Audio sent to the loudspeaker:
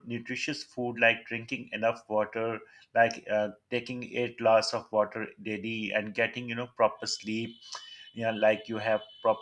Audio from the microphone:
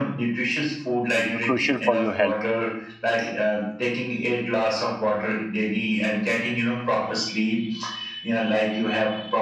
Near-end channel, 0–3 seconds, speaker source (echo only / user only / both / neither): both